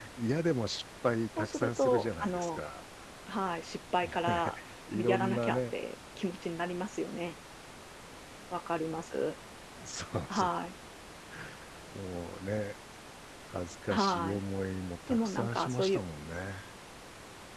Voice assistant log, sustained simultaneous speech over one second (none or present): present